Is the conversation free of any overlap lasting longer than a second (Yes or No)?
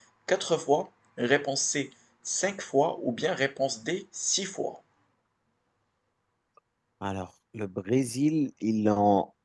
Yes